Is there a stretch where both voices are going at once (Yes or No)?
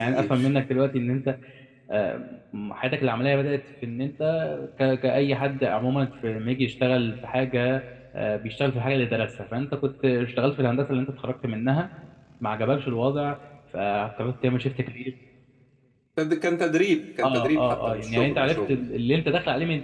Yes